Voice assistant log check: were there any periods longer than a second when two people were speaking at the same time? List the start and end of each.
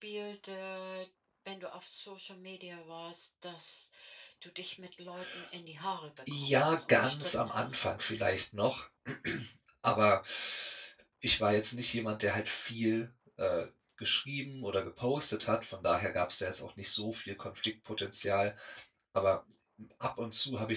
6.3-7.8

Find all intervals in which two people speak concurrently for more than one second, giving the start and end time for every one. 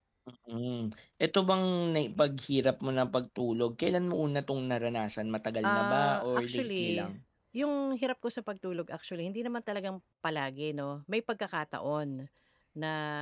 5.6-7.1

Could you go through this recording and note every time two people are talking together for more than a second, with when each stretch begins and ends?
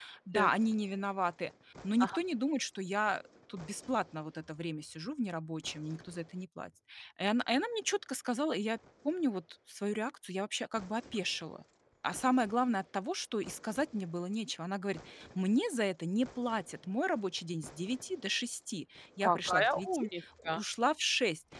19.2-20.6

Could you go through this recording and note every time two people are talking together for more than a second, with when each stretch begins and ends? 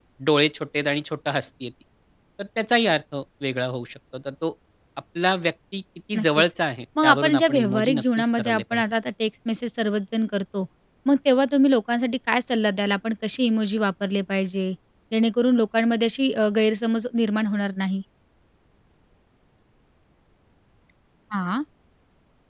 7.0-8.8

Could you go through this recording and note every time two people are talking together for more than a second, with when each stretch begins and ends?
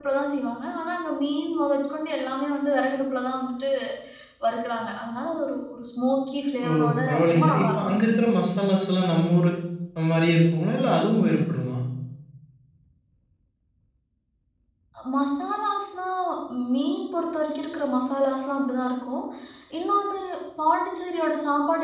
6.7-7.9

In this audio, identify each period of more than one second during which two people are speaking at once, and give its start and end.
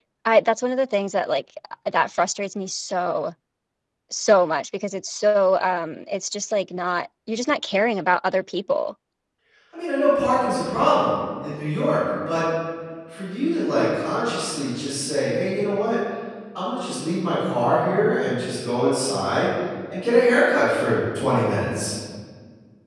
none

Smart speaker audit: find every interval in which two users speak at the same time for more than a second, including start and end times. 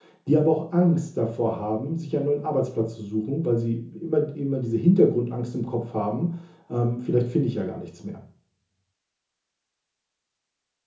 none

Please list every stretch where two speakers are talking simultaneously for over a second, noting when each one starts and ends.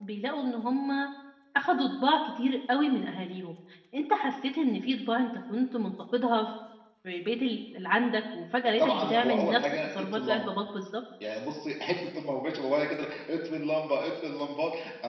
8.8-10.5

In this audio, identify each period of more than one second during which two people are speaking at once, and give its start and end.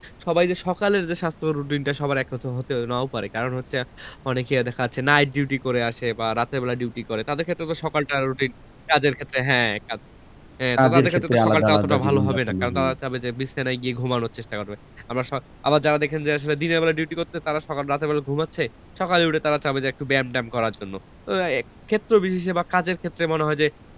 10.8-12.9

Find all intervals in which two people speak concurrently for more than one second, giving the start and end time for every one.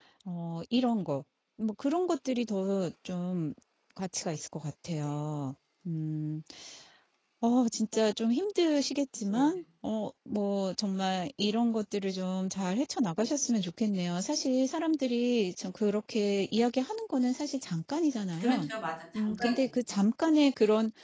none

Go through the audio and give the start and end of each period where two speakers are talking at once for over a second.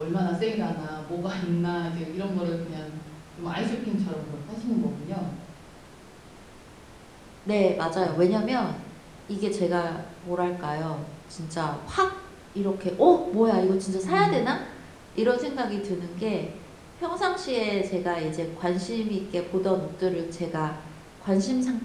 none

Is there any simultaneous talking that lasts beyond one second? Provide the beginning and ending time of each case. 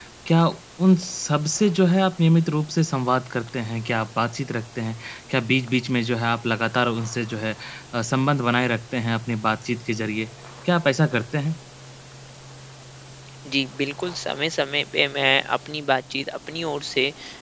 none

